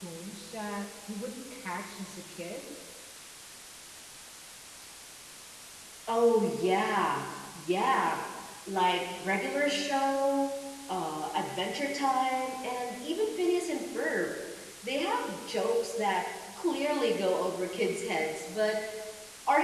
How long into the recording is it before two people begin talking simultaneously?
none

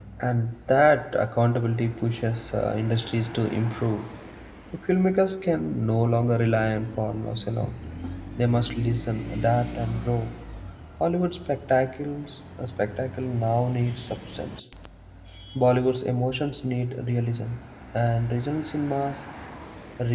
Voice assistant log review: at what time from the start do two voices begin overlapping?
none

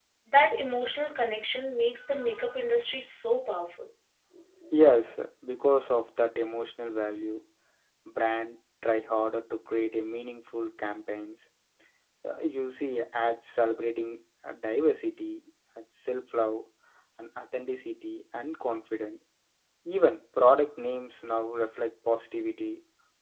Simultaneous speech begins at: none

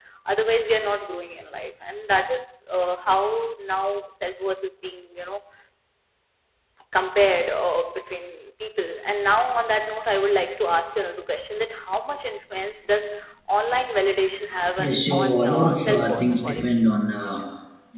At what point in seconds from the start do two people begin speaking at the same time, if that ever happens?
14.8 s

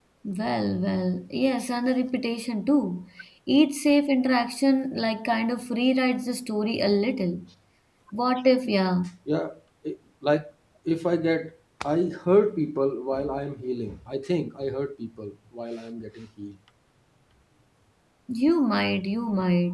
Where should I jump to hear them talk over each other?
none

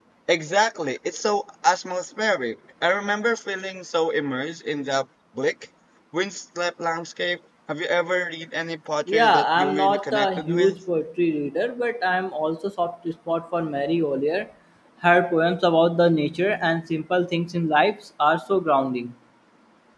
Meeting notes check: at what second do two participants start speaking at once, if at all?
9.1 s

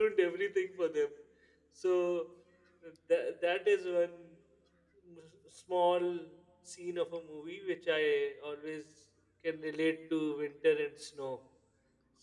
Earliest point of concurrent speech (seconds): none

